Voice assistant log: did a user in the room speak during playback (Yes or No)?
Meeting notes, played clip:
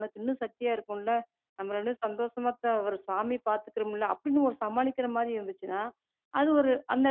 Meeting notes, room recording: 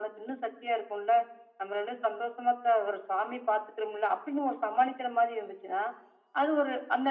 No